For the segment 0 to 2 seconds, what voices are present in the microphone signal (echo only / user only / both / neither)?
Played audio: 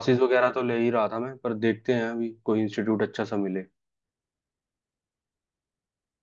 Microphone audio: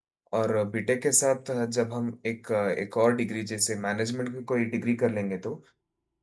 user only